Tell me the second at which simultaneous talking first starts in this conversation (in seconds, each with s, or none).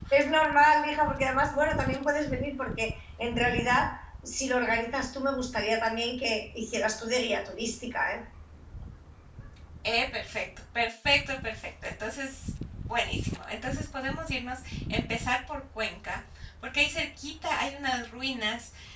none